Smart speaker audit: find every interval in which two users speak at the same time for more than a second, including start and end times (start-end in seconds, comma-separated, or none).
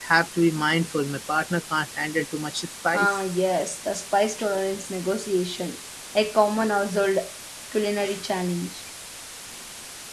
none